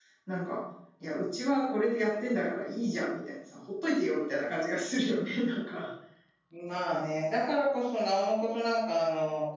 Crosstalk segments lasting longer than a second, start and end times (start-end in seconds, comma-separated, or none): none